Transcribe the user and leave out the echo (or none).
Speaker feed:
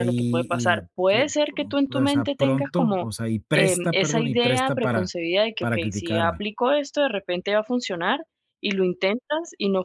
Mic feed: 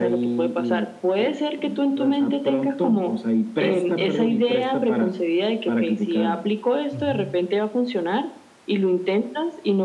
ujú,